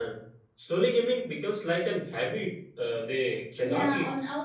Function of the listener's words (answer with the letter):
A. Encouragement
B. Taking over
B